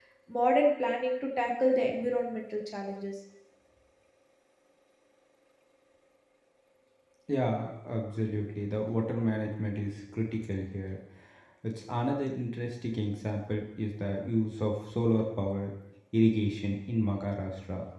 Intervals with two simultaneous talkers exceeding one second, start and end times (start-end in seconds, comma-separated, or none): none